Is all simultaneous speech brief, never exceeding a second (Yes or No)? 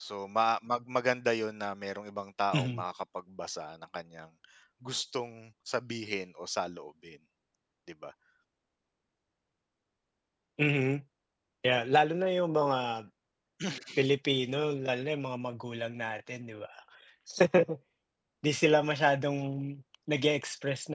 Yes